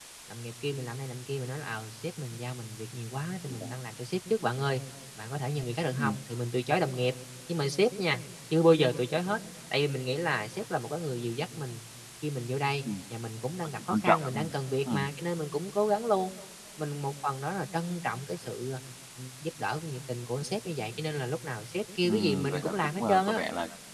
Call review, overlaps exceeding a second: present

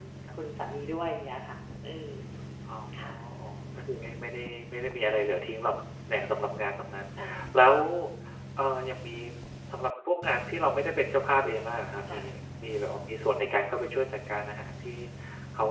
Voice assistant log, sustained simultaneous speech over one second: none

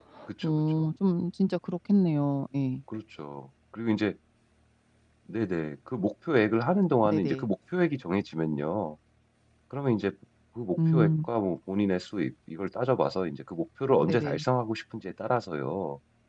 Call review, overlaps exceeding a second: none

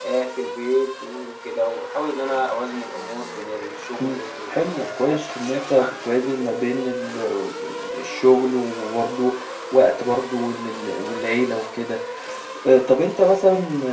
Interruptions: present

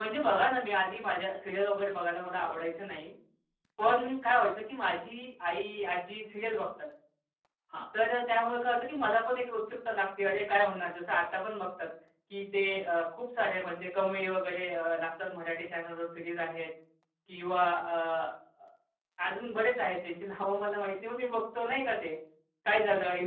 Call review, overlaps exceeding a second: none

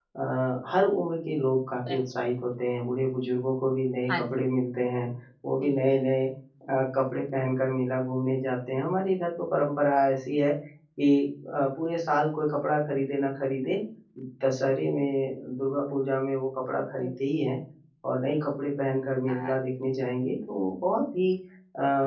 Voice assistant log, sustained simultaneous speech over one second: none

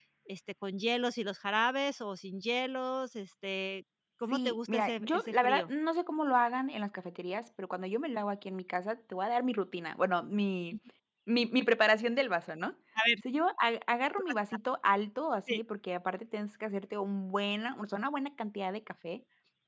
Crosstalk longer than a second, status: present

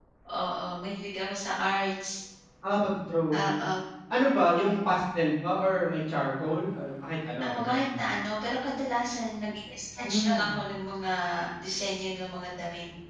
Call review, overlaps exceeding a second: none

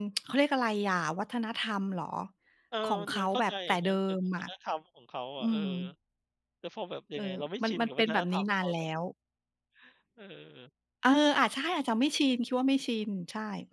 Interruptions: present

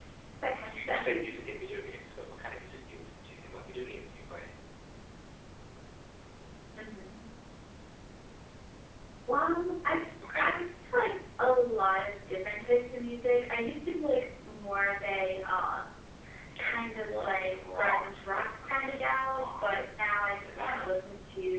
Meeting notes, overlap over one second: present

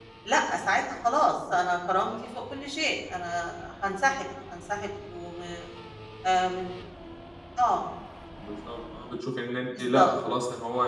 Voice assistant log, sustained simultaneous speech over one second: none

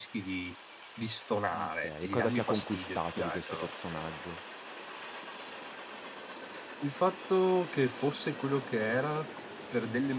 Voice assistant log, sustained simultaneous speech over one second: present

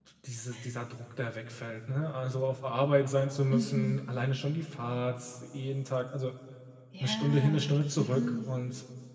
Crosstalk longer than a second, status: present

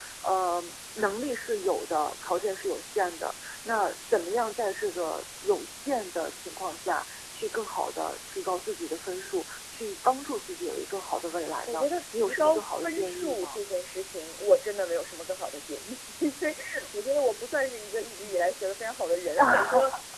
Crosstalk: present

